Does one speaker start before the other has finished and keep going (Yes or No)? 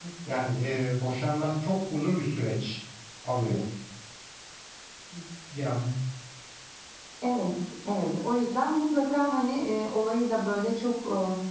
No